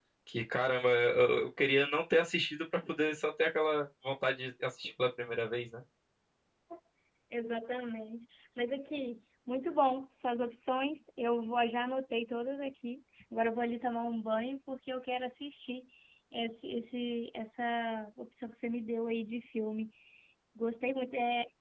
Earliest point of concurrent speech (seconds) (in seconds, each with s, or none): none